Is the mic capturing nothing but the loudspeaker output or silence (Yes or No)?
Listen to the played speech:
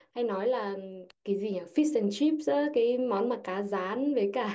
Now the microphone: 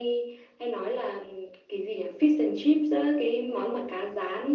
Yes